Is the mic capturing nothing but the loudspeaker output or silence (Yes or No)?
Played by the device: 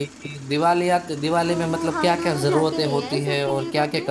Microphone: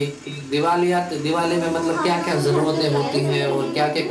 No